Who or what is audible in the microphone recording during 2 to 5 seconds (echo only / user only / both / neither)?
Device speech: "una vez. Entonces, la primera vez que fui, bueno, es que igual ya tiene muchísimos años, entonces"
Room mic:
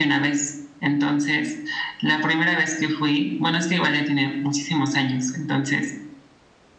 echo only